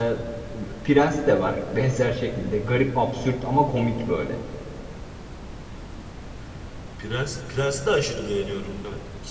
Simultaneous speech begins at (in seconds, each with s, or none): none